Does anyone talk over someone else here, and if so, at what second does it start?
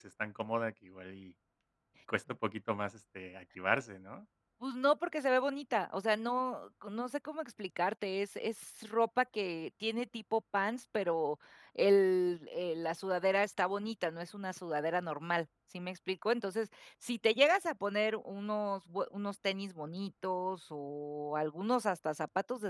none

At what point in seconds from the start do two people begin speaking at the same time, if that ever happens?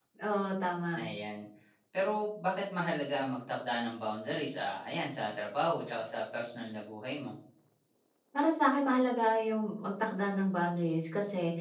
none

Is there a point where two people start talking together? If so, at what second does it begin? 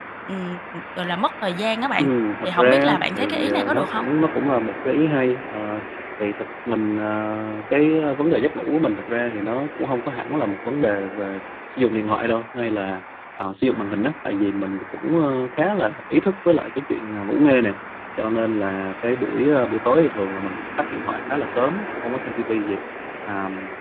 2.4 s

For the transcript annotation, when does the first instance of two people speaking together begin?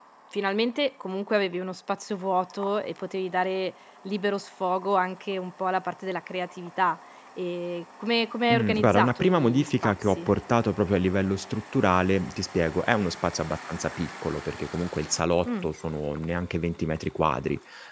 8.5 s

